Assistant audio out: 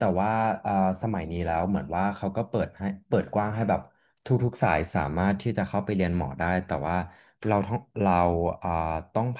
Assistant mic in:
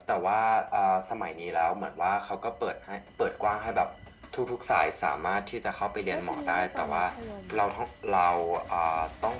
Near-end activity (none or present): present